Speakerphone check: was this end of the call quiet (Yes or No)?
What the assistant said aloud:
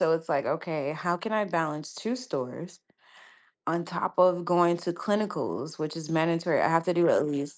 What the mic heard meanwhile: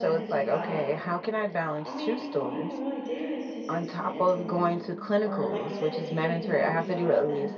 No